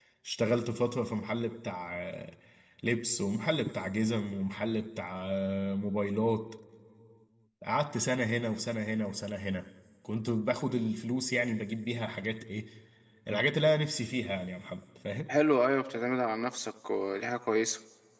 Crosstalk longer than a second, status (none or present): none